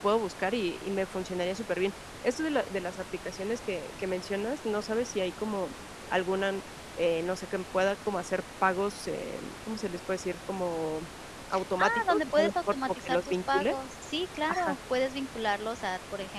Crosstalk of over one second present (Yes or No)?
Yes